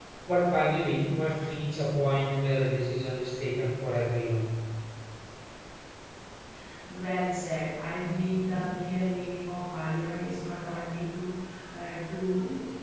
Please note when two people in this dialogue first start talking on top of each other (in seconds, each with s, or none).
none